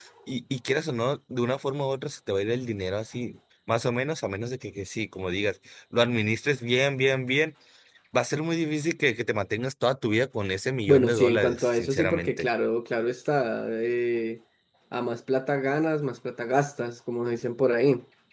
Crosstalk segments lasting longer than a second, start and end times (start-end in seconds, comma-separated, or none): 10.9-12.4